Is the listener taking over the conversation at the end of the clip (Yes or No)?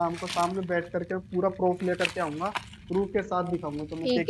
Yes